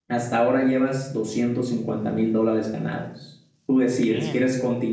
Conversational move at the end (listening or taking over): listening